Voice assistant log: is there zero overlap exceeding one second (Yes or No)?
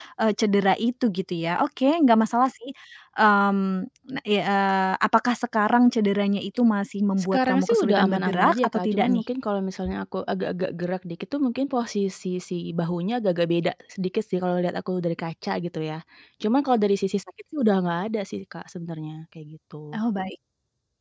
No